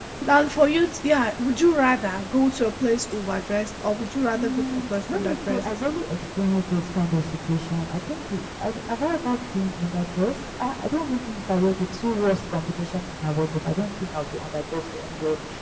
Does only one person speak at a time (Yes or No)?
No